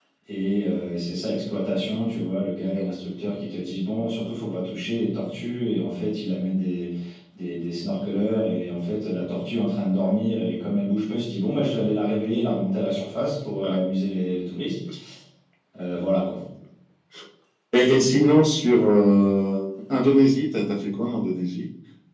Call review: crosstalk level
none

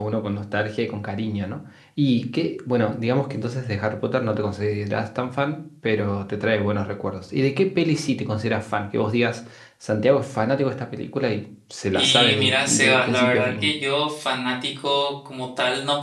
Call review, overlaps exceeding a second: present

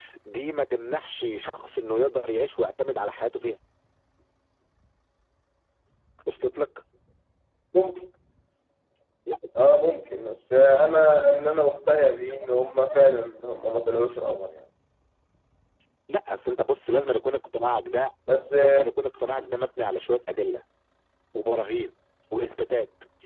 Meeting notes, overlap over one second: none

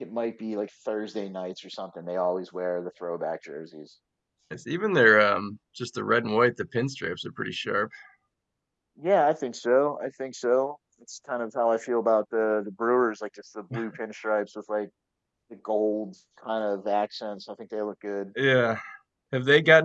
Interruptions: none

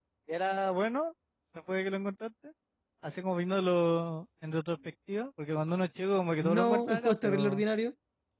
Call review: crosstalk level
present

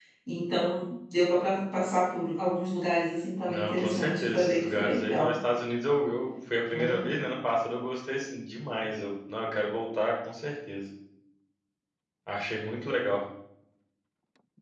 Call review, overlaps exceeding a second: present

